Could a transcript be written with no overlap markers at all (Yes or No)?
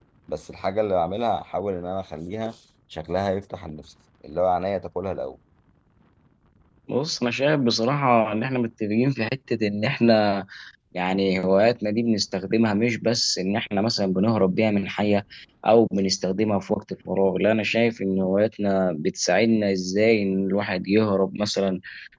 Yes